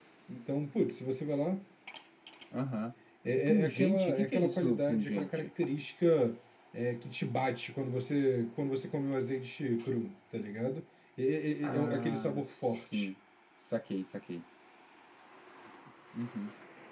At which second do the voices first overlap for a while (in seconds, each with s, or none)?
3.5 s